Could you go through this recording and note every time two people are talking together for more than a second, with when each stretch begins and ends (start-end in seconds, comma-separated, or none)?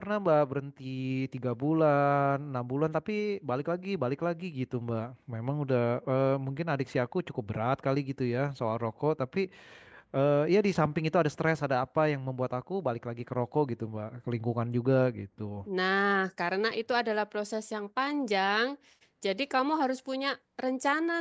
none